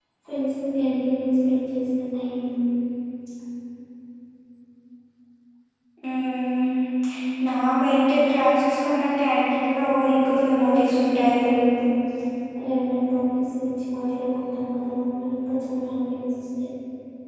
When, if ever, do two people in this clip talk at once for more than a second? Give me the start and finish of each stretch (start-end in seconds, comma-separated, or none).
9.8-11.3